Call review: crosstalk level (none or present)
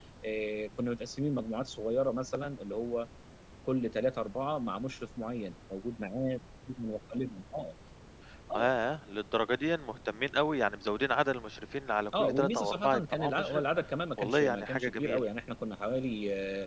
present